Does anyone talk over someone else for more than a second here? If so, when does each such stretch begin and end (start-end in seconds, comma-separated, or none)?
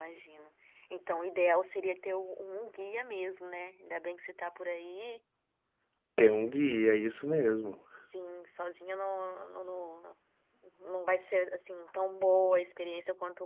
none